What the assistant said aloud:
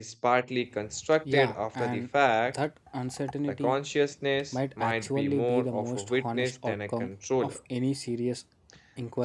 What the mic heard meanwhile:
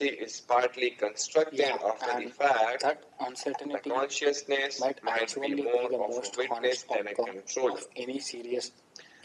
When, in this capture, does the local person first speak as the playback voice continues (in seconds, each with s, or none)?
none